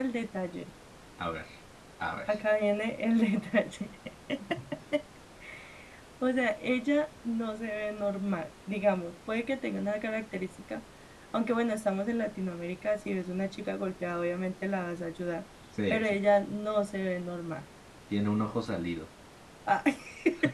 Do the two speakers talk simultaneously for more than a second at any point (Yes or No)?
No